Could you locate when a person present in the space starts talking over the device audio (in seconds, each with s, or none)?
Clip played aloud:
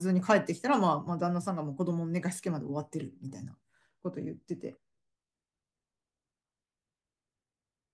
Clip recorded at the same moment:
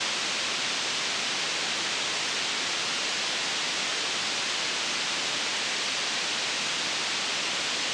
none